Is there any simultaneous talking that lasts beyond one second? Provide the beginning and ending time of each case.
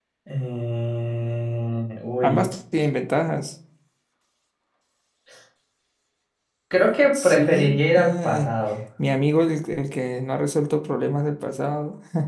7.1-8.5

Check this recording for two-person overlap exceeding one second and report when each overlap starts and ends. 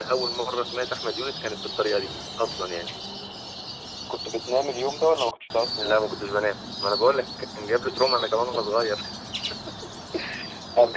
none

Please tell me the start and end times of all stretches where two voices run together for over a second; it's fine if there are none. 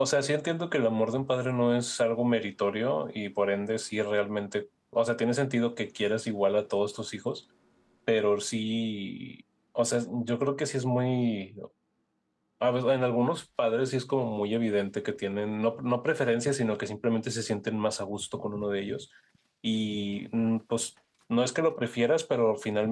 none

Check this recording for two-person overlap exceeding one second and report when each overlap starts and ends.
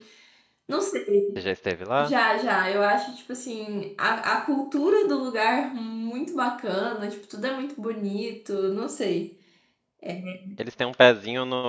none

